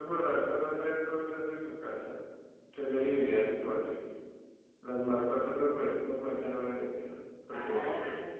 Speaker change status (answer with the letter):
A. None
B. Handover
B